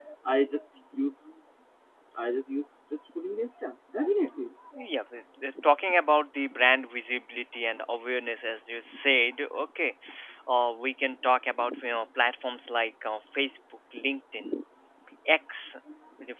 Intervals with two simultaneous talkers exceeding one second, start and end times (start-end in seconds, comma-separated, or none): none